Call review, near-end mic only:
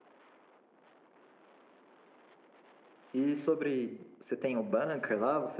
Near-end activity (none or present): present